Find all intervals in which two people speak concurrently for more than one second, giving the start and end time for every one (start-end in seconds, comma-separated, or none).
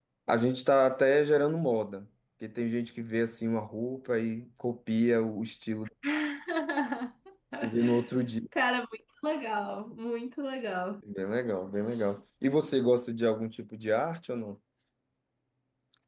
none